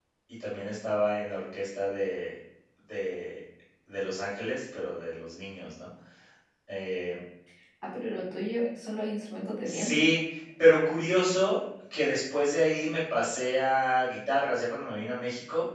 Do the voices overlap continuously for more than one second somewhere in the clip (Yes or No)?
No